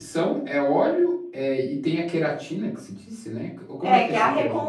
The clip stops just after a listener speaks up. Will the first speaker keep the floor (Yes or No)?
No